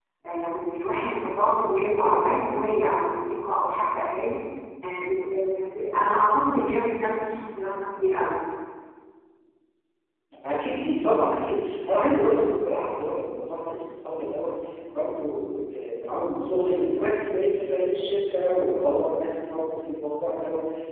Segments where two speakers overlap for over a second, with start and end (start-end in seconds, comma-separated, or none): none